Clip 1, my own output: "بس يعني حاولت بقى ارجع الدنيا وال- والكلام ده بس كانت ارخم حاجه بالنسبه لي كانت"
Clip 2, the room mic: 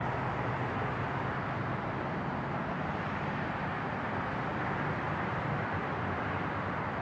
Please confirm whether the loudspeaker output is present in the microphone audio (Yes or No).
No